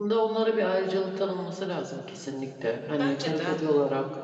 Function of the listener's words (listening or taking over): listening